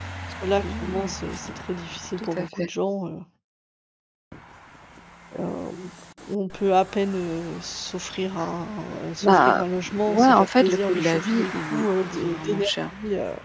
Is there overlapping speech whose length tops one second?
Yes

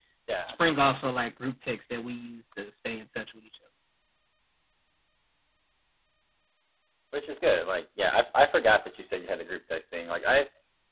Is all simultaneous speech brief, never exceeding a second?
Yes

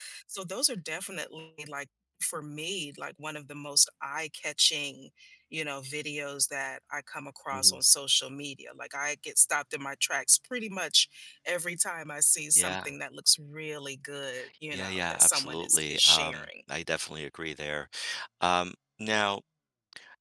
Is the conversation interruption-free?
No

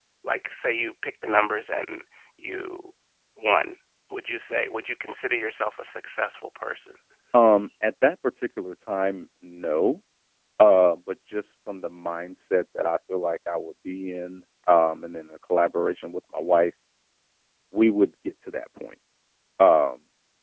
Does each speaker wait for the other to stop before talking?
Yes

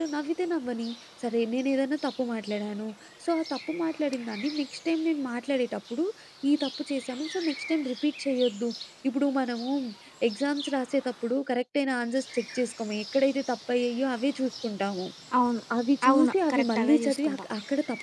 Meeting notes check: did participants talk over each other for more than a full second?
Yes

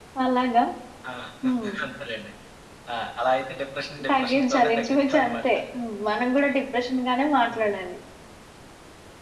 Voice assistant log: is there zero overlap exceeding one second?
No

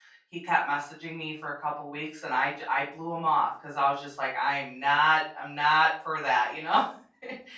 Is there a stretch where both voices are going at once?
No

